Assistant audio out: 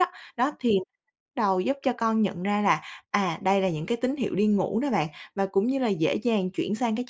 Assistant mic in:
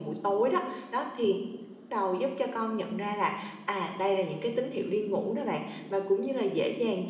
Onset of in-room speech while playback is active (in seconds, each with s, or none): none